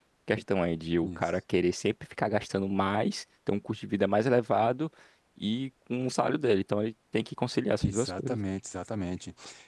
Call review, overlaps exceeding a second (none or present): none